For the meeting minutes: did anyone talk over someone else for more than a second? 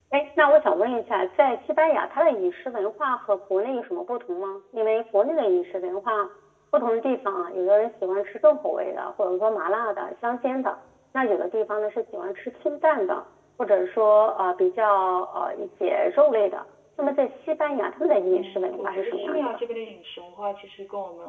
Yes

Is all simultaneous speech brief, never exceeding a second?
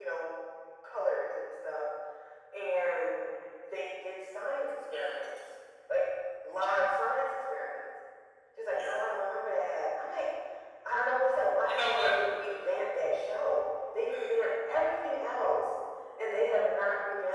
Yes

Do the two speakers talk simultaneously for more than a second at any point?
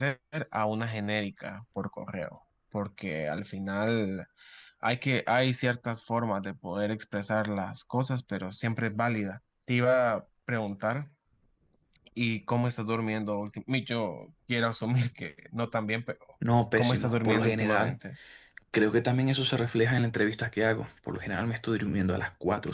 Yes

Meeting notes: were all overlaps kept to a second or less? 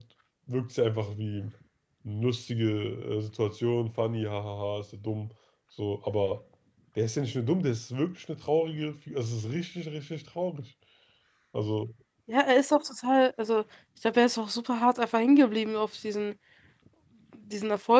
Yes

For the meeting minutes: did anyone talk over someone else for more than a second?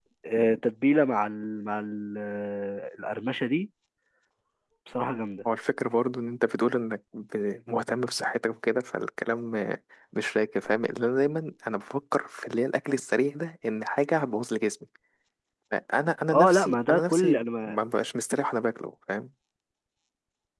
Yes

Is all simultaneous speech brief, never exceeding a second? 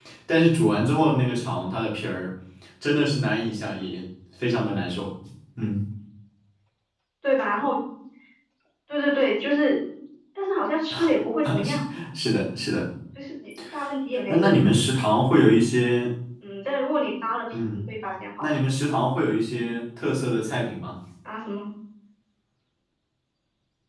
Yes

